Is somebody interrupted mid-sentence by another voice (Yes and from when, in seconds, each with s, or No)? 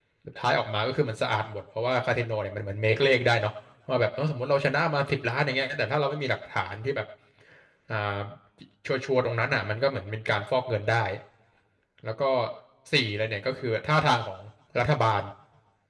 No